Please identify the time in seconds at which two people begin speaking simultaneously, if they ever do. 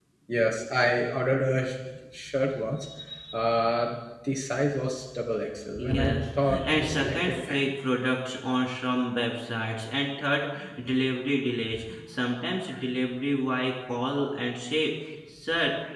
5.7 s

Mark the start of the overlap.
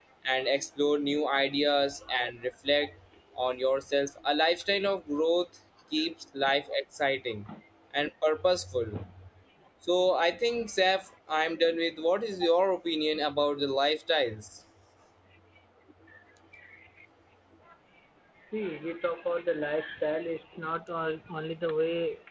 none

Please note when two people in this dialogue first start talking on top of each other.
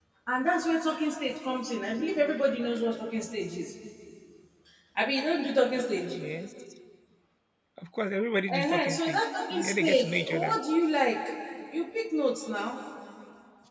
8.5 s

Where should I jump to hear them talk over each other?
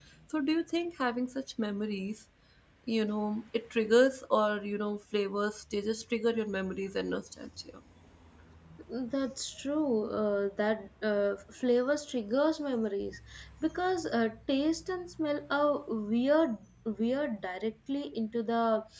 none

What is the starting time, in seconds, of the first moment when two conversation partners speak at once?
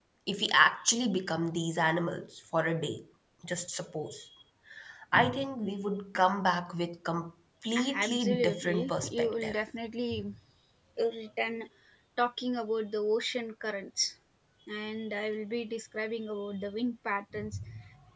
7.8 s

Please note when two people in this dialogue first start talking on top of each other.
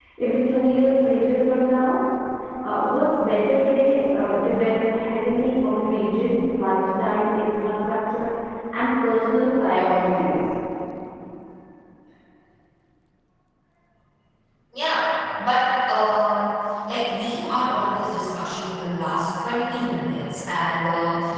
none

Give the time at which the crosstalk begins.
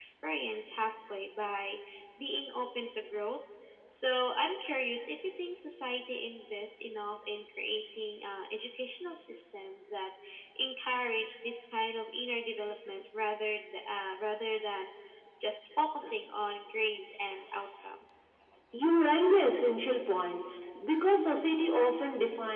none

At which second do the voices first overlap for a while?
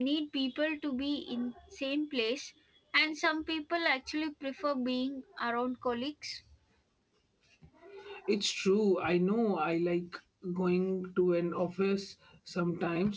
none

